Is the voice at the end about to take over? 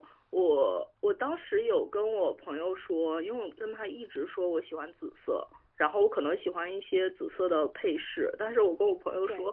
No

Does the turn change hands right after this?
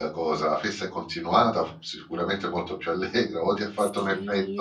Yes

